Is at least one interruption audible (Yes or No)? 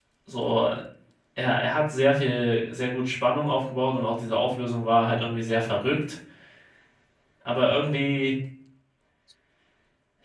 No